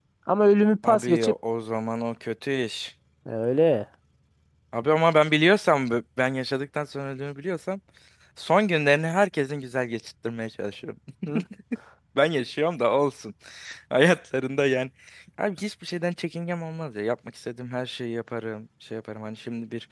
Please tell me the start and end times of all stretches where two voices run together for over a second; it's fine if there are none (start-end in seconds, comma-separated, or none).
none